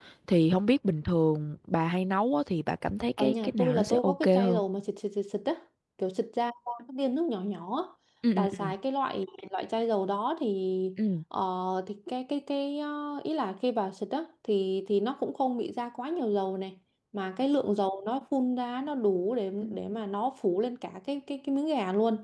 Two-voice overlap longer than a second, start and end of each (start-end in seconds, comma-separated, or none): 3.2-4.6